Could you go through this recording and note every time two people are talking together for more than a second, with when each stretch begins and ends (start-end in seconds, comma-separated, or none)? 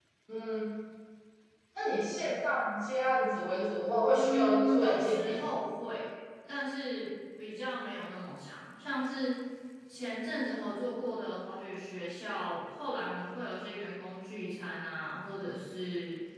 4.1-5.4